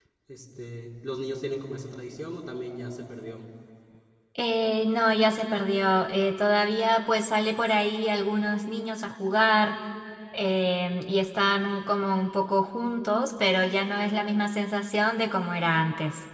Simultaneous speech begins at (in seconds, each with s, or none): none